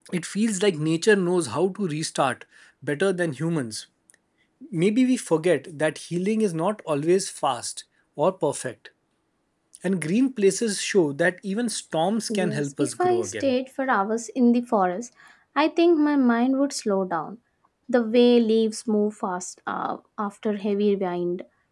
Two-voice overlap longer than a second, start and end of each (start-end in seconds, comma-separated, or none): 12.3-13.5